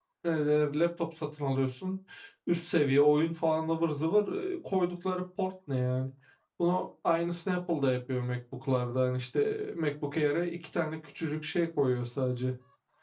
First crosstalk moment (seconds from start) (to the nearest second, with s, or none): none